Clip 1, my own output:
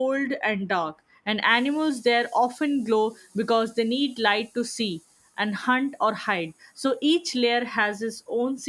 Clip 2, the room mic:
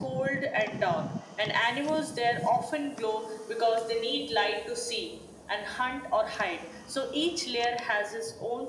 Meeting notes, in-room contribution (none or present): none